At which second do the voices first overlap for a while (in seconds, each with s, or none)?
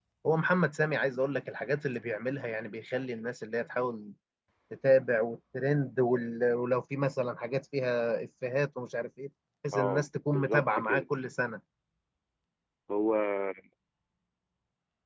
9.7 s